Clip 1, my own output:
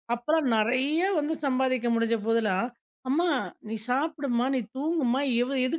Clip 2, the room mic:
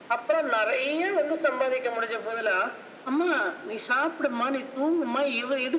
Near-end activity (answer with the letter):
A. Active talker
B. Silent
B